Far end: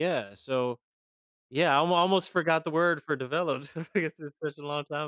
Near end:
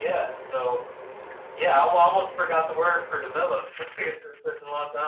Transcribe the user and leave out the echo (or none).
none